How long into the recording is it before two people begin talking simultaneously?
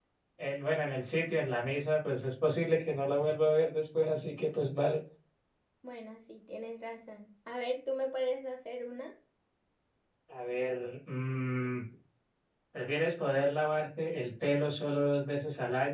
none

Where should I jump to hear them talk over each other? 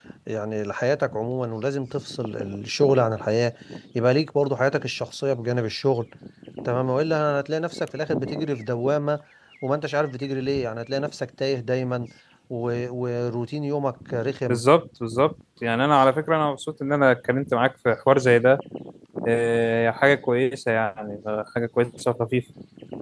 none

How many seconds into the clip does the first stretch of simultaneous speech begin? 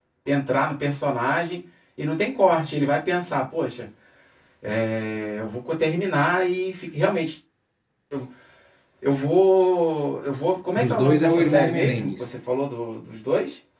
10.8 s

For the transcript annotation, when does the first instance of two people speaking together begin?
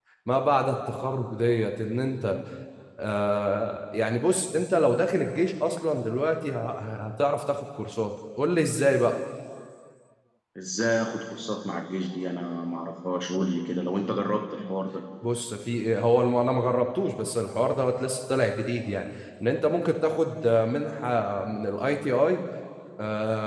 none

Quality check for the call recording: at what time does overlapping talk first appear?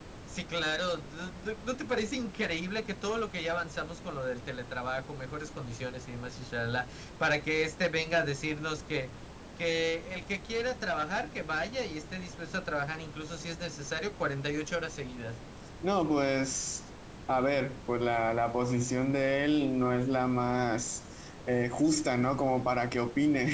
none

